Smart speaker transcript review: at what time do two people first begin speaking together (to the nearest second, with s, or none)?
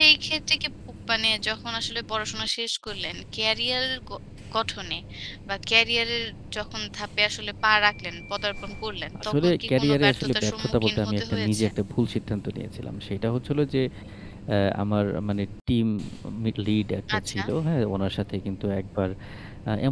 9 s